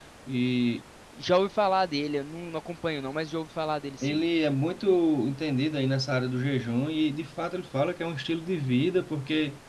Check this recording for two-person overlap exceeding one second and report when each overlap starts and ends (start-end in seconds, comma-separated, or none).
none